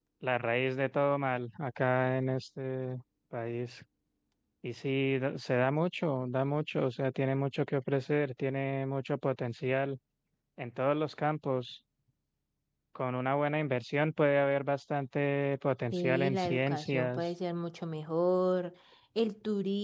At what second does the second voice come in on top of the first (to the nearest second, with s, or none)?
16 s